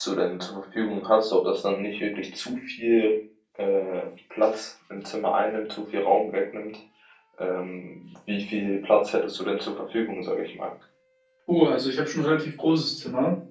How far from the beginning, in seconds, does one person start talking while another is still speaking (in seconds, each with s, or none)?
none